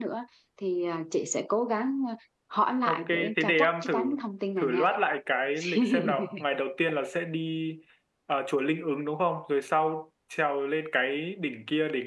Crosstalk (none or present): present